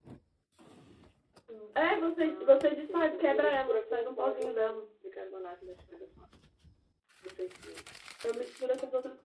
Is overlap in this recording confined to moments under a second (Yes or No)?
No